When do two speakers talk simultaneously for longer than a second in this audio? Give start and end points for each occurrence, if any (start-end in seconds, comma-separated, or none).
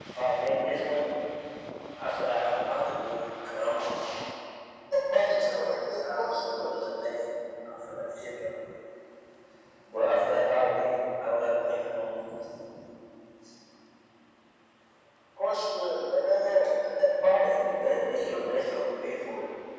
5.4-6.8